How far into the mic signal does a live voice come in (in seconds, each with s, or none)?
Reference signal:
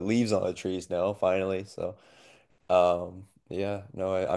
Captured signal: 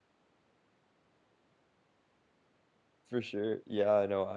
3.0 s